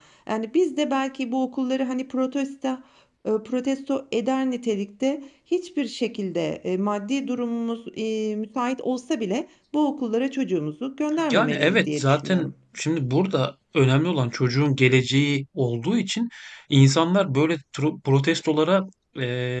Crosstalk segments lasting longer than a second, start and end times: 11.3-12.5

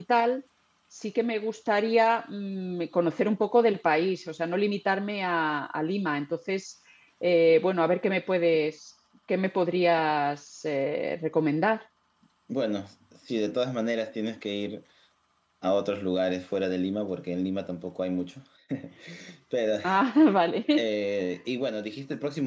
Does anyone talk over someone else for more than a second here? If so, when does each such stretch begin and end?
none

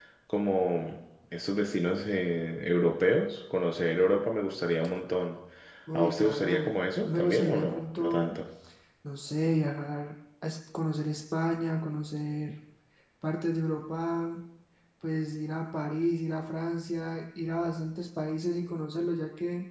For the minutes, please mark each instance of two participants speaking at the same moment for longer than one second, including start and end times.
5.9-8.3

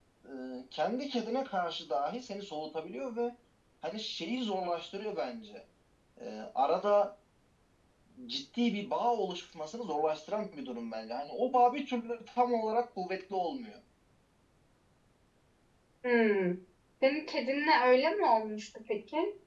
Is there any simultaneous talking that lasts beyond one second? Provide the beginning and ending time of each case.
none

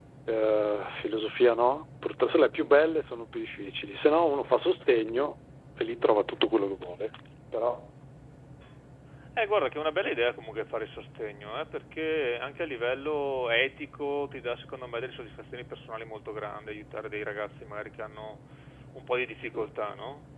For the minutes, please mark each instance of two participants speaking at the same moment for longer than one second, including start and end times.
none

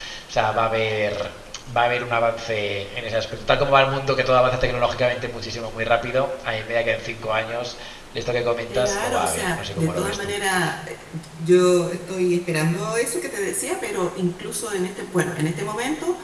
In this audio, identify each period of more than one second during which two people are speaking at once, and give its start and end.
8.7-10.3

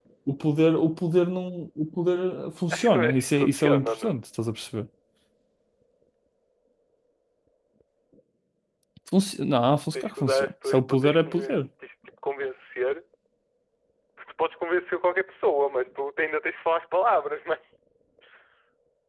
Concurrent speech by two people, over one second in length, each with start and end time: 2.7-4.2, 9.9-11.5

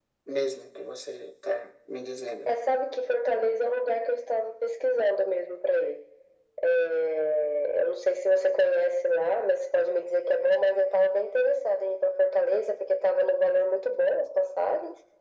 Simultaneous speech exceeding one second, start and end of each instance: none

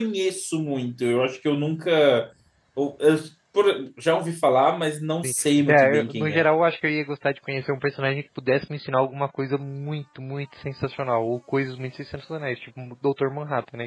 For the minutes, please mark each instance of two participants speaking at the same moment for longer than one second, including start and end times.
5.2-6.5

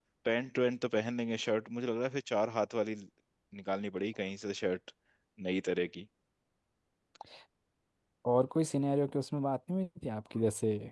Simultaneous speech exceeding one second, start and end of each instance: none

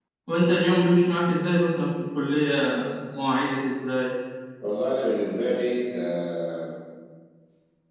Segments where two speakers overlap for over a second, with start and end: none

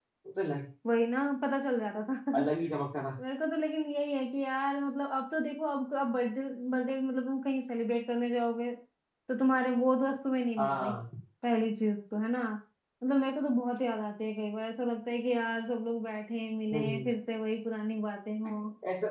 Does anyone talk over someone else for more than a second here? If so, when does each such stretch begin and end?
none

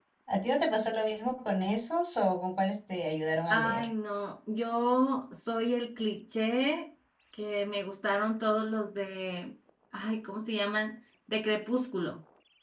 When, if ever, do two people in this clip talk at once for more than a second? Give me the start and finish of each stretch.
none

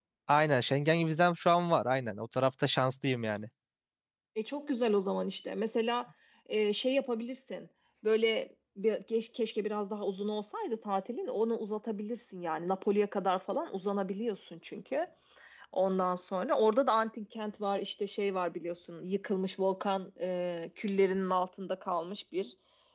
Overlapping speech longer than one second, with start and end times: none

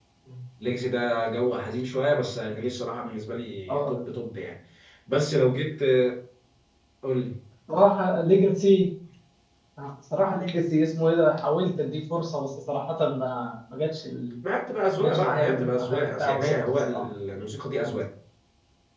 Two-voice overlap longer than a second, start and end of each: 15.0-17.0

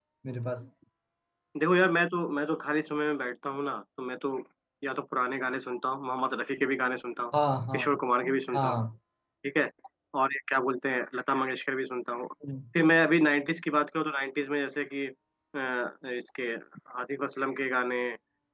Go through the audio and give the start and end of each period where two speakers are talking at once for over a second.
none

